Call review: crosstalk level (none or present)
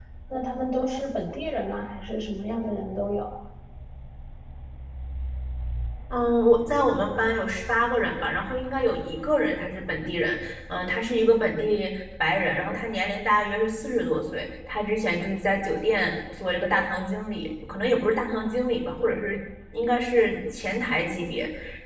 none